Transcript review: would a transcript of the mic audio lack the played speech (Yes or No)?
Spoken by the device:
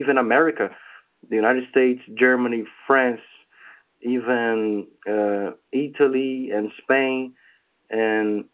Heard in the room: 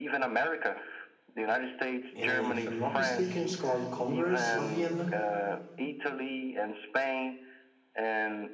No